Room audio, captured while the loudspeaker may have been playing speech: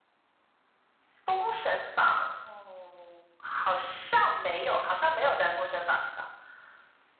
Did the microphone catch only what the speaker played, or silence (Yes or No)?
Yes